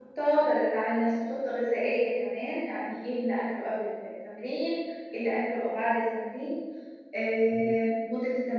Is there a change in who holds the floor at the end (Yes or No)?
No